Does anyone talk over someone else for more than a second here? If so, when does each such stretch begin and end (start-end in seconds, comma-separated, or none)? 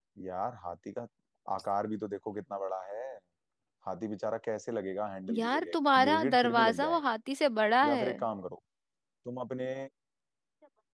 5.4-7.0